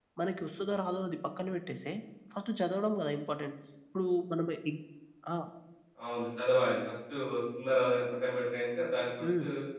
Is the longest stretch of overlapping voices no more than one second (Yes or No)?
Yes